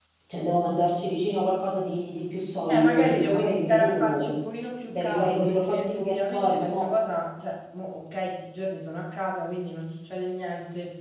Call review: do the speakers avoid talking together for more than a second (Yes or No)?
No